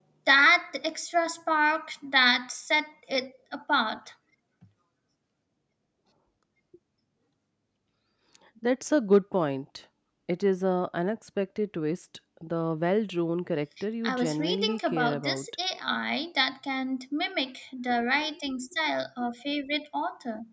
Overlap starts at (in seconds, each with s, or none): 14.0 s